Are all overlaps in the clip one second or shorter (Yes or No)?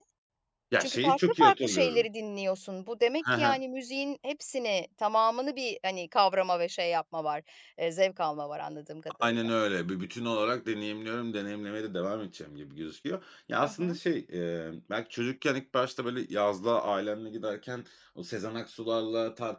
No